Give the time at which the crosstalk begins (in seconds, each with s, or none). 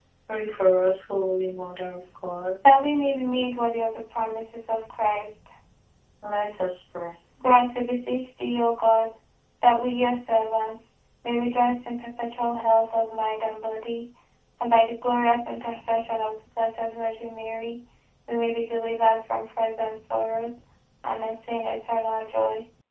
none